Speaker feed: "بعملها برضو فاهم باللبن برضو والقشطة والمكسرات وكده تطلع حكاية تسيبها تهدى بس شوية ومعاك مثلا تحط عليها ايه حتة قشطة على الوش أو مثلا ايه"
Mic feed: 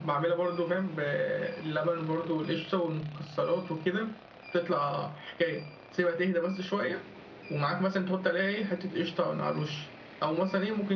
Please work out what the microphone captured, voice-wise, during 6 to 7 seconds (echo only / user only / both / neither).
echo only